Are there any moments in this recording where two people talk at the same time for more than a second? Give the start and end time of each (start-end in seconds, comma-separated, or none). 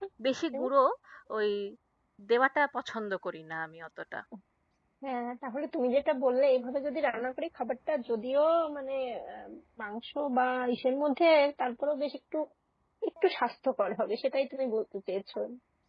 none